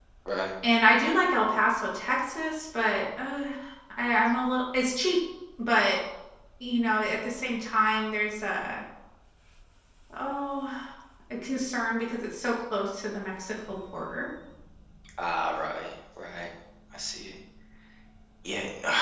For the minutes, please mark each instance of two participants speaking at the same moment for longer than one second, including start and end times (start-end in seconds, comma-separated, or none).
none